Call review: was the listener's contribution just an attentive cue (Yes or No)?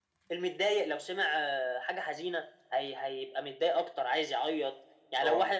Yes